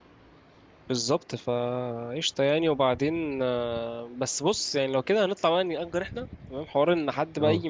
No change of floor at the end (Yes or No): Yes